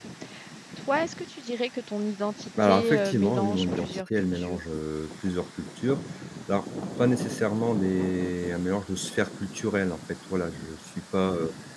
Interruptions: present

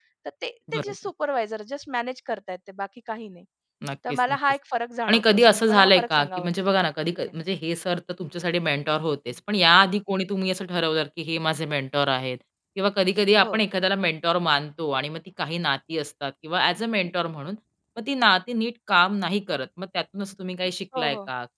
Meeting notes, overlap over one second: present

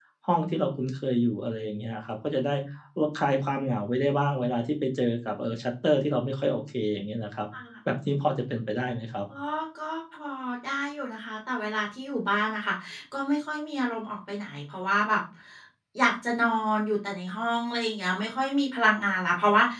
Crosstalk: none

